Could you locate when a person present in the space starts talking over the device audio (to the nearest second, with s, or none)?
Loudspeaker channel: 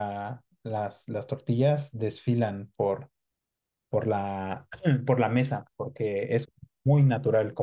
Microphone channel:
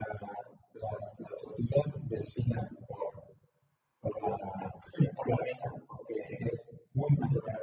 none